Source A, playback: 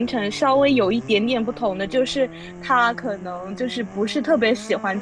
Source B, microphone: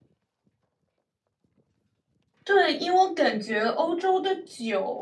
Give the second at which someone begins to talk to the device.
2.4 s

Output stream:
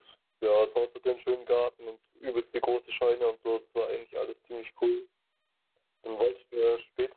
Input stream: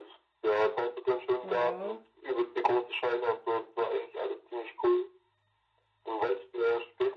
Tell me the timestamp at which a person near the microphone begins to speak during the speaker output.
1.4 s

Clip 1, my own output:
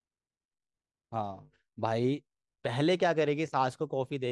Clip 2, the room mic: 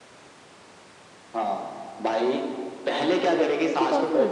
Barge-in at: 3.2 s

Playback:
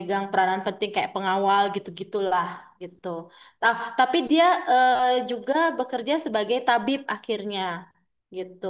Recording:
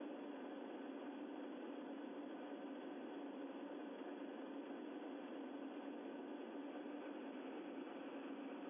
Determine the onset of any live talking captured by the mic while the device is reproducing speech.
none

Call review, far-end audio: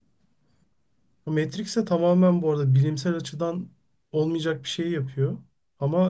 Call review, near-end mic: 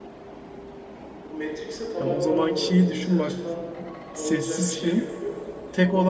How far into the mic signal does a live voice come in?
2.0 s

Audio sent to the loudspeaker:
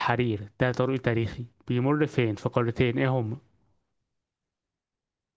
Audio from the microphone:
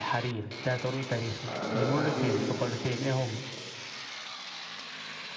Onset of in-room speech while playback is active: 1.5 s

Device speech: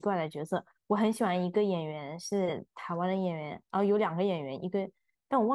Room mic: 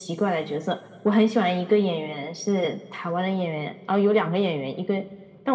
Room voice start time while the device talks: none

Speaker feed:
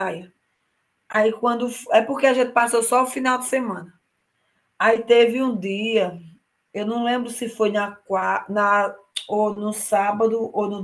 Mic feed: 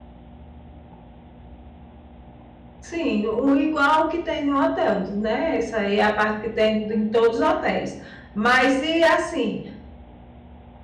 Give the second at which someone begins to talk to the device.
2.8 s

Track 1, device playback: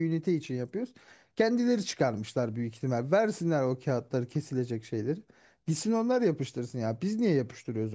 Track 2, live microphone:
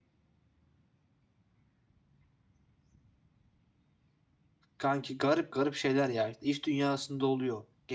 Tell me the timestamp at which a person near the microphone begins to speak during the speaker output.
4.8 s

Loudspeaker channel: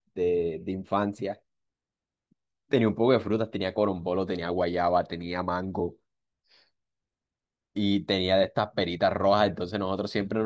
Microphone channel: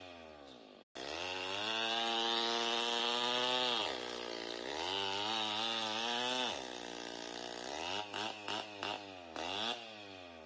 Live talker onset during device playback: none

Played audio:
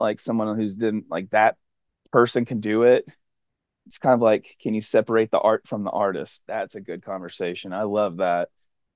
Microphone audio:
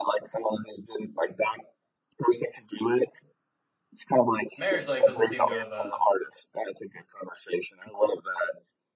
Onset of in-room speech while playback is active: 4.5 s

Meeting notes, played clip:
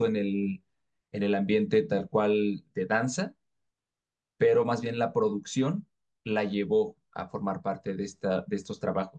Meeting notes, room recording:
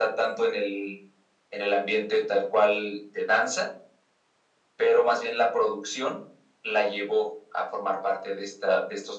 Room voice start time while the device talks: none

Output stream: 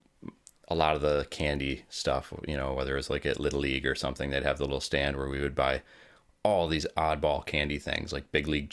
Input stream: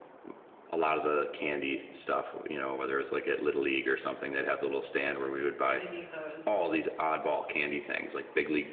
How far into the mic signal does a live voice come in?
5.7 s

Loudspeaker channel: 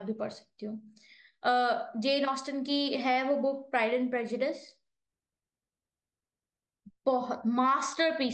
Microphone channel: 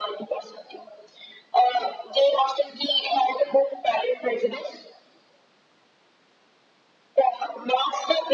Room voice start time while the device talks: none

